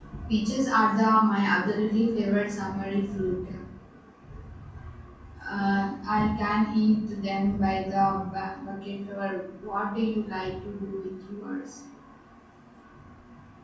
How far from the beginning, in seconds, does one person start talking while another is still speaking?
none

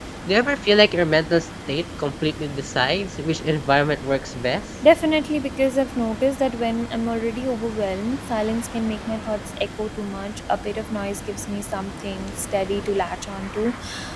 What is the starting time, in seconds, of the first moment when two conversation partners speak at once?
none

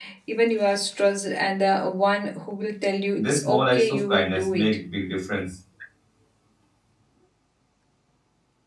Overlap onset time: 3.2 s

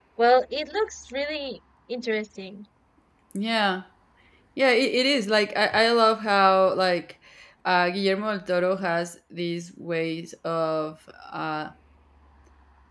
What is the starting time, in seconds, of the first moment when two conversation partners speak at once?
none

